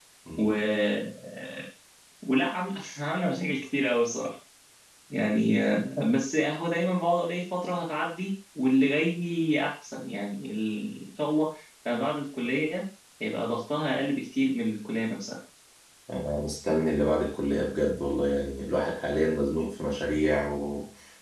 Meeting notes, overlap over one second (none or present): none